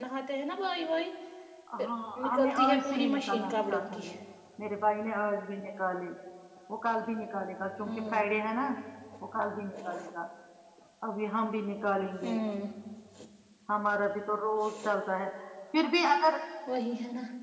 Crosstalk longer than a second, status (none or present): present